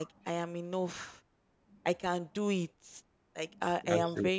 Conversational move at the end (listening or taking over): listening